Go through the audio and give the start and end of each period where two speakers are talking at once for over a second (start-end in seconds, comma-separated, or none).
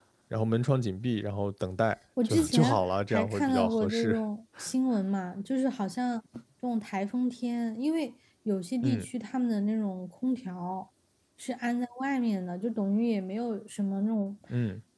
2.2-4.2